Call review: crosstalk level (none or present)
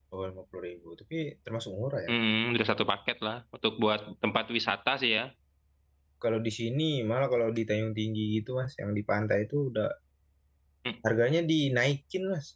none